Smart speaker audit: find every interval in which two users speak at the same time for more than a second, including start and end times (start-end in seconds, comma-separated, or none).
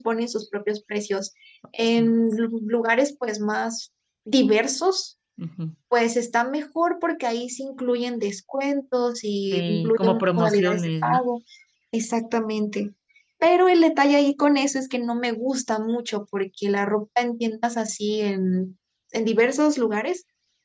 9.5-11.2